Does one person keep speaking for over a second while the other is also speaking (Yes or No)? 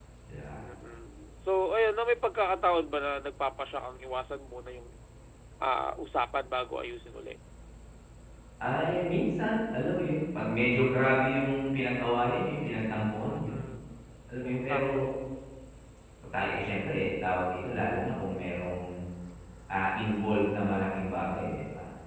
No